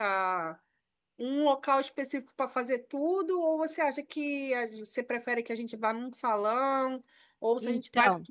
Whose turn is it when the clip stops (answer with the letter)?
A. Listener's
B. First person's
B